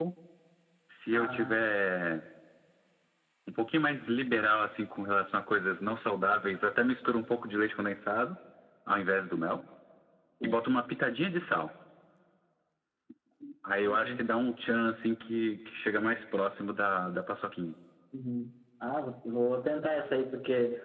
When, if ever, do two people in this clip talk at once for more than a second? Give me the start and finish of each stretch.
none

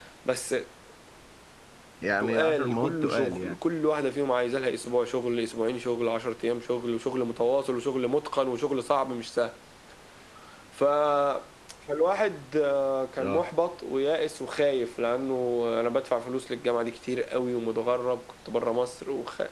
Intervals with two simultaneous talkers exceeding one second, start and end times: 2.2-3.5

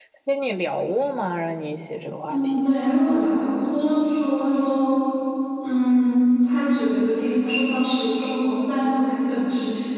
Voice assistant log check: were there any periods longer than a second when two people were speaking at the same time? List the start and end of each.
none

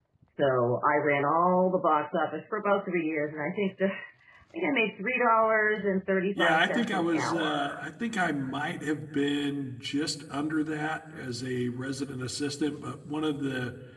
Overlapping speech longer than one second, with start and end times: 6.4-7.8

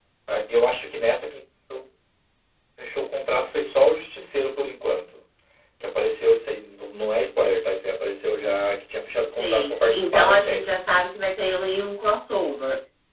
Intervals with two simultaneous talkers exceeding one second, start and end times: 9.4-10.7

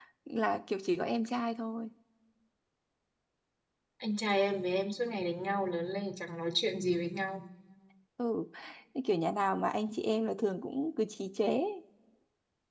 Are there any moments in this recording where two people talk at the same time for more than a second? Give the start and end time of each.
none

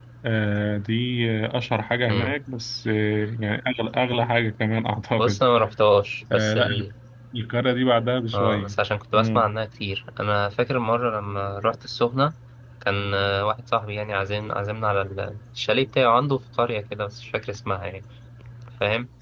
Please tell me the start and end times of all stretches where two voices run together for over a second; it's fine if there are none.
none

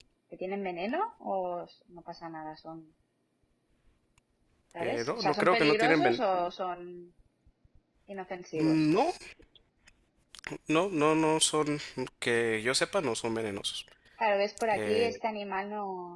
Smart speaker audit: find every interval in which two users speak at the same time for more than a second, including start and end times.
4.8-6.2

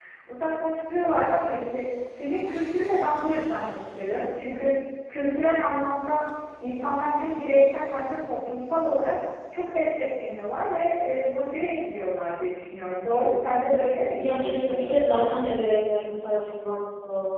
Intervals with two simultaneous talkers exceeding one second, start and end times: 14.2-15.4

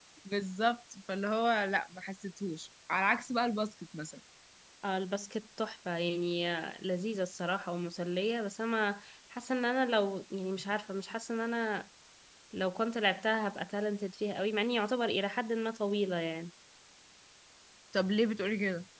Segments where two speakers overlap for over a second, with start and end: none

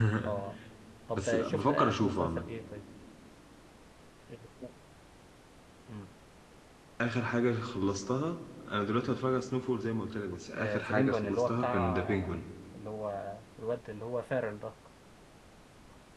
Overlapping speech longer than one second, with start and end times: 1.1-2.5, 10.6-12.5

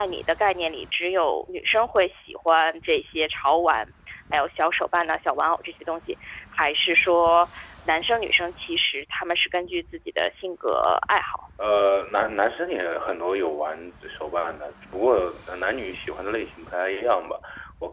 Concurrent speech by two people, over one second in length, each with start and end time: none

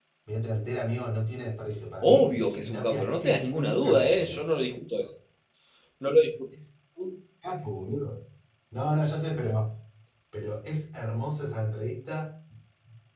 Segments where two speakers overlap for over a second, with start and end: 2.0-4.4

